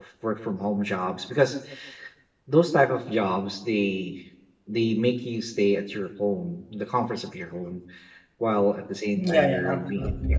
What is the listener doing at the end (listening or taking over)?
taking over